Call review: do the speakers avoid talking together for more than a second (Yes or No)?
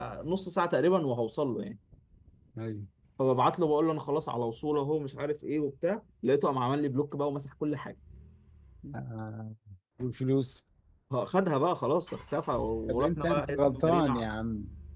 No